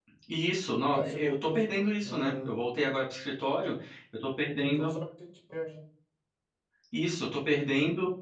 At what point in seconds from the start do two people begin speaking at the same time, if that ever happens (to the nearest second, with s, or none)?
1 s